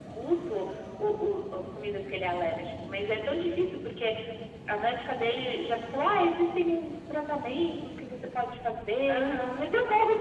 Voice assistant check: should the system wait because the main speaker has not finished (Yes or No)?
Yes